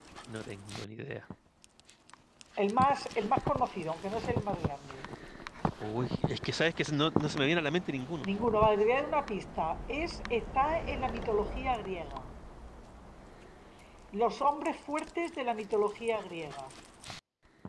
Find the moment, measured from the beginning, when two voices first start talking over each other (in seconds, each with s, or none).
none